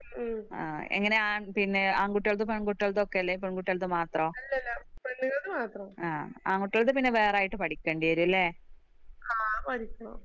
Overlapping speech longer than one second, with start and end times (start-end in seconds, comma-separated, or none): none